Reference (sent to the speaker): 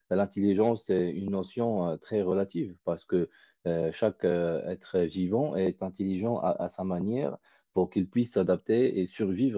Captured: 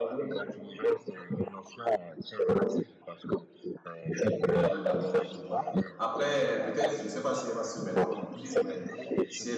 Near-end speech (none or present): present